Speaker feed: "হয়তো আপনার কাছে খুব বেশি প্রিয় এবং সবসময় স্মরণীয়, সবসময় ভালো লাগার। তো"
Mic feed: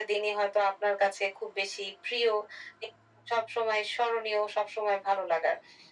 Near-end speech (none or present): none